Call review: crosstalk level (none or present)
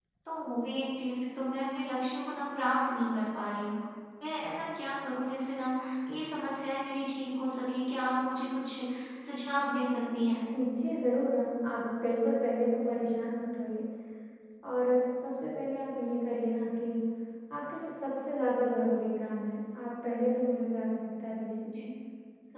none